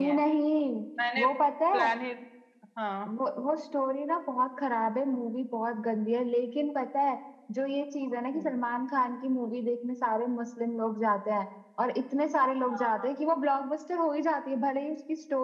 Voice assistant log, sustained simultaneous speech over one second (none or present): none